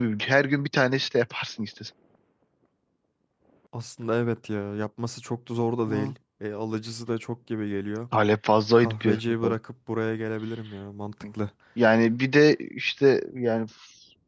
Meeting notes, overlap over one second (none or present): none